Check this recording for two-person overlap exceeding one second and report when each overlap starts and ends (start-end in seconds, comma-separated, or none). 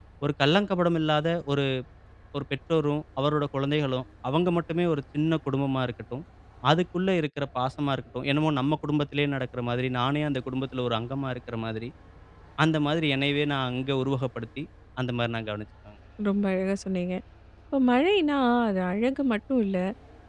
none